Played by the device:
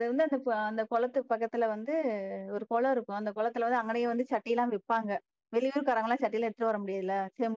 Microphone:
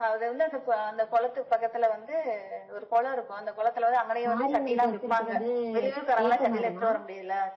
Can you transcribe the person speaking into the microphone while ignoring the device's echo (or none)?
மாரியம்மனுக்கு வச்சிருக்குறது வேப்ப மரமா